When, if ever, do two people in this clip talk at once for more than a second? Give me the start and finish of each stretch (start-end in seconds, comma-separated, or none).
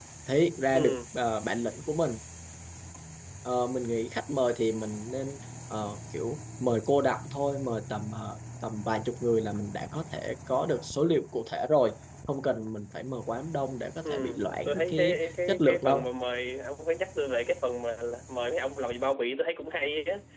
14.0-16.1